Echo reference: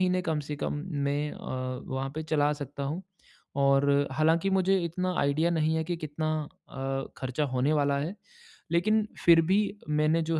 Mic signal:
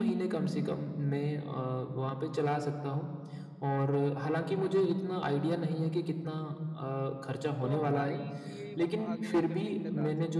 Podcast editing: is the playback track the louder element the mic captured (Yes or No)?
Yes